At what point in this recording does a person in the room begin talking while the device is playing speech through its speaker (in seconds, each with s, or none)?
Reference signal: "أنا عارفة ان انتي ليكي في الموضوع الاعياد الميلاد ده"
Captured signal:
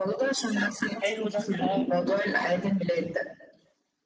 1.0 s